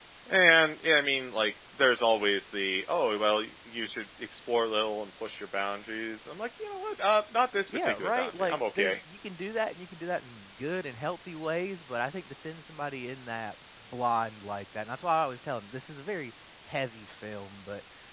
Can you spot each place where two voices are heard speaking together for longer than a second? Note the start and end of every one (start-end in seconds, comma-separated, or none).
7.7-9.0